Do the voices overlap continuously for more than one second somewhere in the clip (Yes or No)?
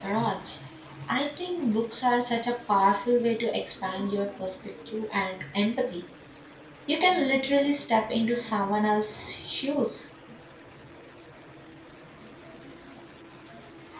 No